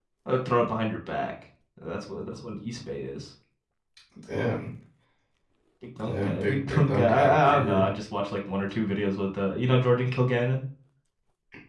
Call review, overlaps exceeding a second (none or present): present